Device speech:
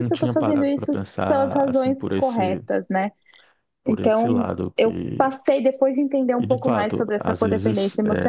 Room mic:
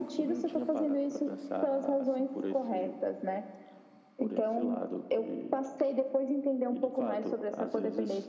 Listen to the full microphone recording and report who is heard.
echo only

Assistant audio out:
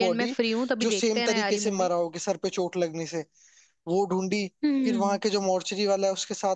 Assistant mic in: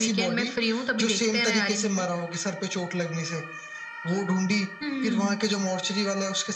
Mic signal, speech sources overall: echo only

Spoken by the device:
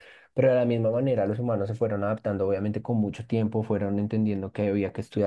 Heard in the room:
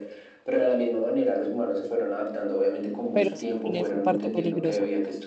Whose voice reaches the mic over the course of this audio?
both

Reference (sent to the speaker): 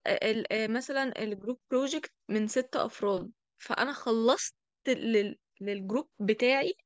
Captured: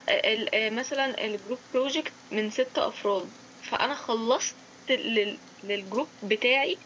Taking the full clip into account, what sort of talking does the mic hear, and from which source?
echo only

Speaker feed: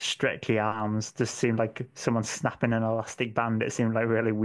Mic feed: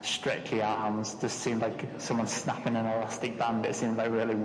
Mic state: both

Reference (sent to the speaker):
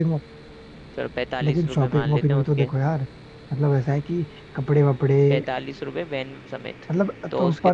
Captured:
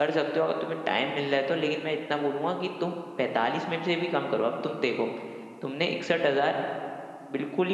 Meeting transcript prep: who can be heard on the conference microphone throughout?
user only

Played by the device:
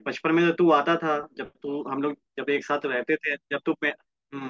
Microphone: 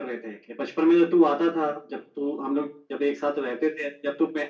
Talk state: echo only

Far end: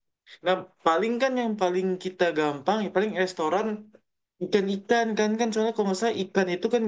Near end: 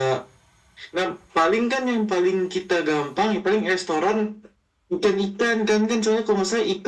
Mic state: echo only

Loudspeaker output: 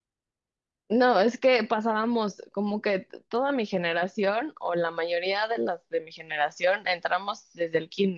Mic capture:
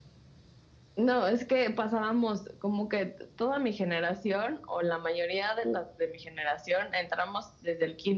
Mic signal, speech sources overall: echo only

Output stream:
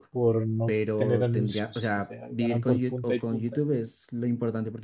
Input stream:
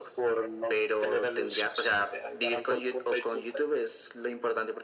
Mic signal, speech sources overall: echo only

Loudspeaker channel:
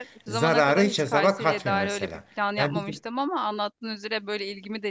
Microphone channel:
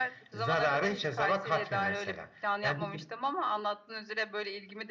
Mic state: echo only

